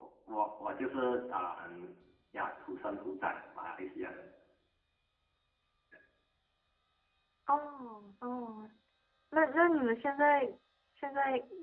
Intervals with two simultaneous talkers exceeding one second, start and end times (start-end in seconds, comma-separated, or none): none